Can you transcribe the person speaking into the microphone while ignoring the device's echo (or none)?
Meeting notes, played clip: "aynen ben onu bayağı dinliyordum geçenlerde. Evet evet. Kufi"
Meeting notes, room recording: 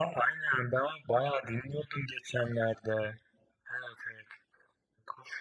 none